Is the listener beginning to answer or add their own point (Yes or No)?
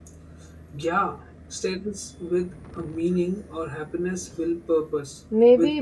Yes